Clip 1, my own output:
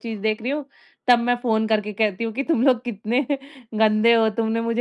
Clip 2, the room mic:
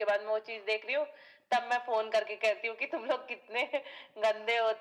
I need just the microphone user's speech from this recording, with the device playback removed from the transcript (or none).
none